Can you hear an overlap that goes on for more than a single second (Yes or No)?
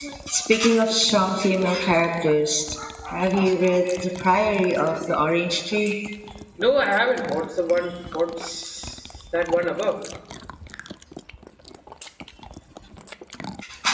No